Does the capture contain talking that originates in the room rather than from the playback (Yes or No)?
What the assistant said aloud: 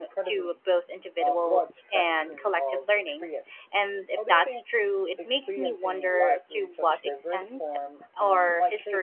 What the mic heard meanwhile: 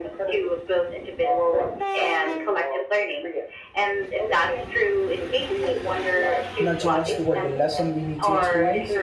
Yes